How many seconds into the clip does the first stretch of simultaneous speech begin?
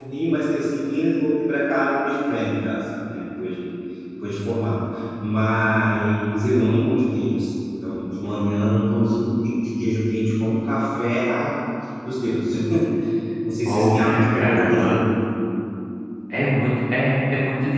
14 s

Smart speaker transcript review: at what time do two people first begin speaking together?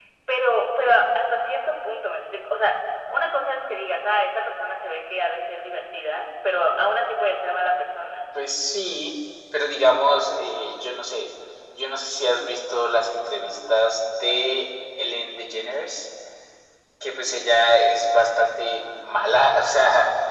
none

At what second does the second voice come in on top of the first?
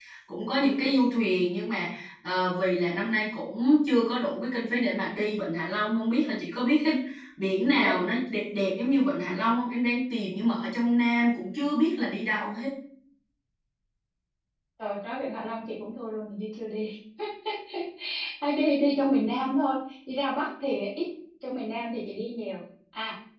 none

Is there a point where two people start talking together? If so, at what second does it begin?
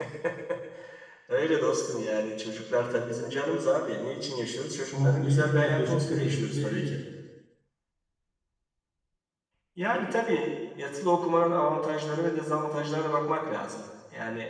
5 s

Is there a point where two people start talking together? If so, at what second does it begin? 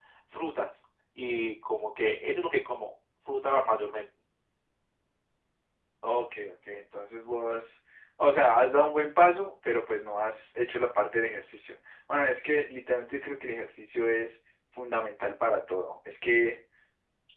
none

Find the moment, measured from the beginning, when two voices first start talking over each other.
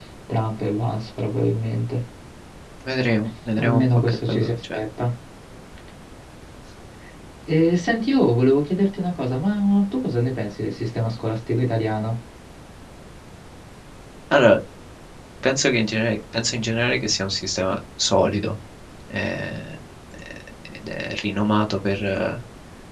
4 s

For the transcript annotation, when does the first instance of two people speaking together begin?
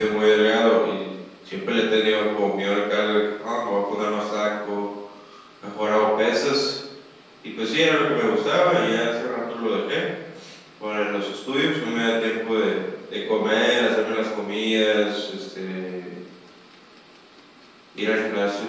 none

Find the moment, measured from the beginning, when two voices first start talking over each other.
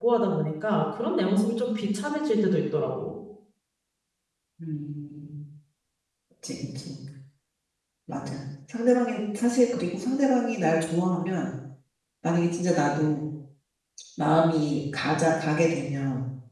none

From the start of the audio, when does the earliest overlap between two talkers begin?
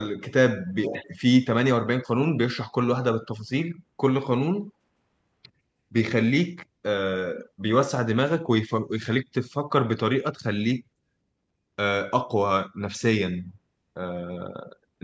none

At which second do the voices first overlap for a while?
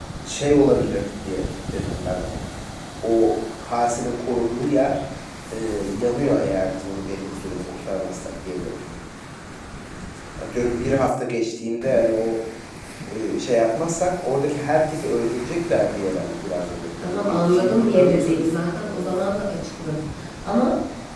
17 s

